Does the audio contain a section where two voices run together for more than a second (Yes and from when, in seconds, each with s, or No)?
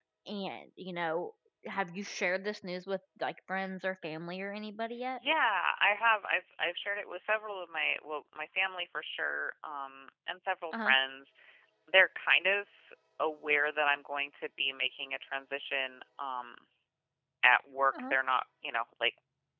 No